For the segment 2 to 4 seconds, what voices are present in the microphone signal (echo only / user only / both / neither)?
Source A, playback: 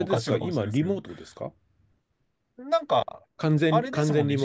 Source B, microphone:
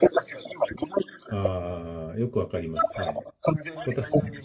both